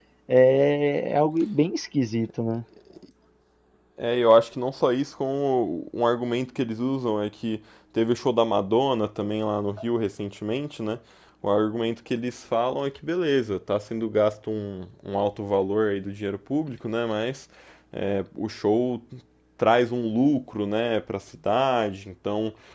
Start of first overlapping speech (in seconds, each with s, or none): none